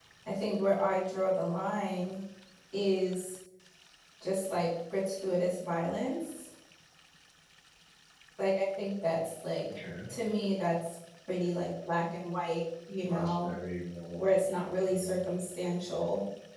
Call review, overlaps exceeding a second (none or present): none